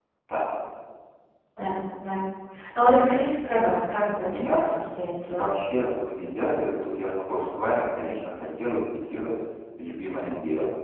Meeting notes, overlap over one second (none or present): none